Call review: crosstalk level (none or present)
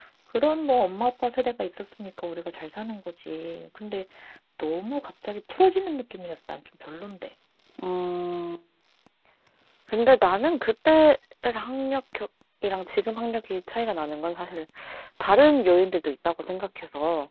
none